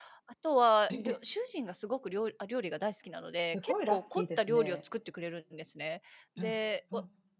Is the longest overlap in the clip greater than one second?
Yes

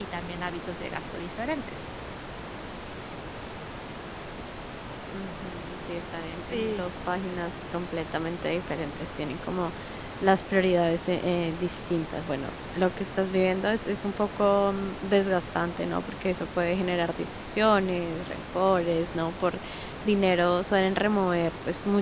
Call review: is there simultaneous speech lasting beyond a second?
No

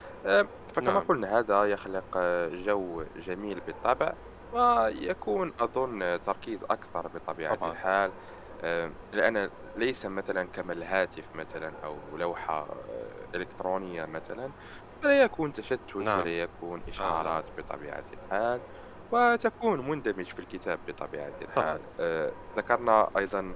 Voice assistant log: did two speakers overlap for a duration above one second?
No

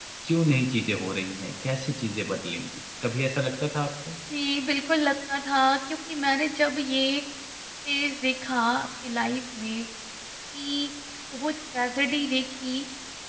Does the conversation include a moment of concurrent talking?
No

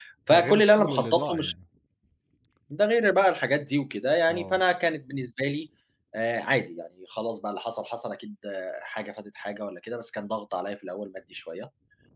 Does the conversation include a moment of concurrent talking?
Yes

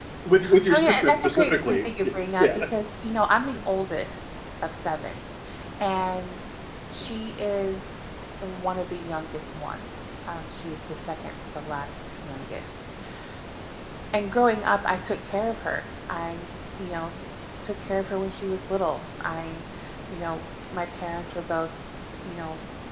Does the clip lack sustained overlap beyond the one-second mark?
No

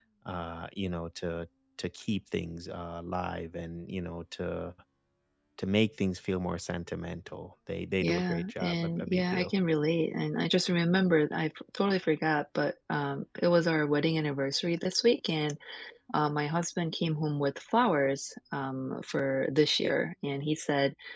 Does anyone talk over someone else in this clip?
Yes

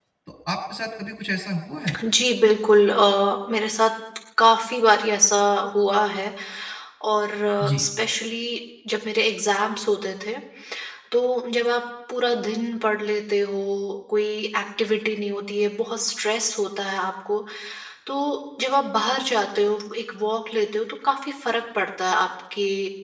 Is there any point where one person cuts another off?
No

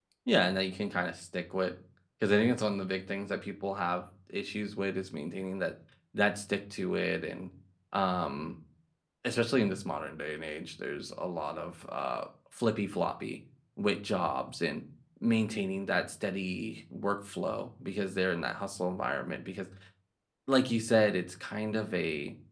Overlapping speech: No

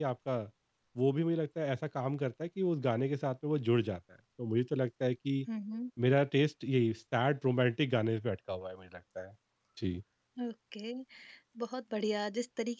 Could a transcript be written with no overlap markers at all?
Yes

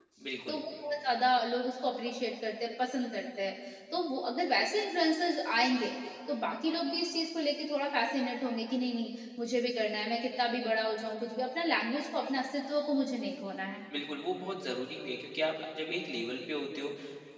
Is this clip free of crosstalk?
Yes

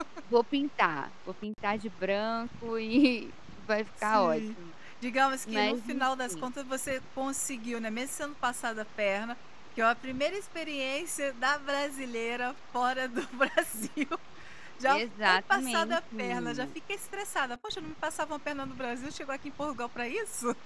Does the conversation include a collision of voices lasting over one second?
Yes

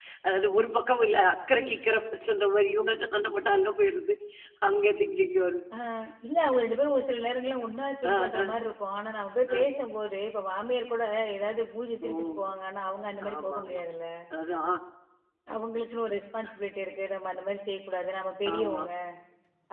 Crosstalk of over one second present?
No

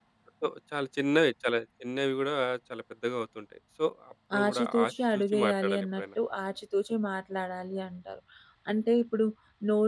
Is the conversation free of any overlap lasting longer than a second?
No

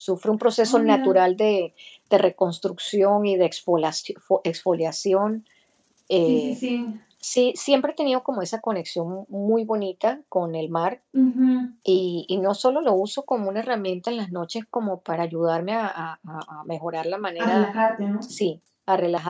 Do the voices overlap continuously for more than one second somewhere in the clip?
No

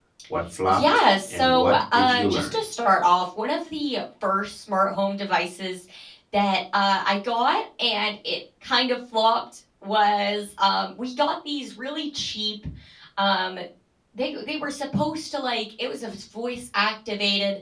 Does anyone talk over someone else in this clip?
Yes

